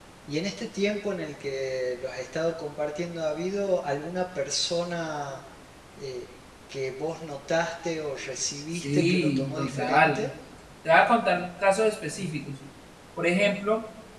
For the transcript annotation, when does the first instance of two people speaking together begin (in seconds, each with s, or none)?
8.7 s